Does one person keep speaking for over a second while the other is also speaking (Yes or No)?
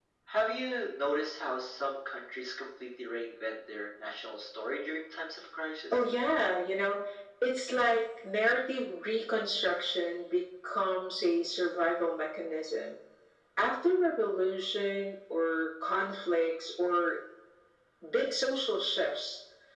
No